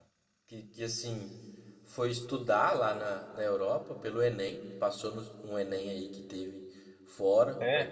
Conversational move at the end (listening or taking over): listening